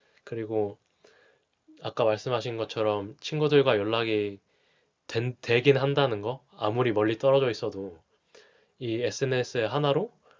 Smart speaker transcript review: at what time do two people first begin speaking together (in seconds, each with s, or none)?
none